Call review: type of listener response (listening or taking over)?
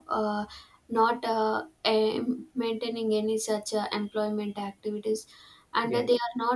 listening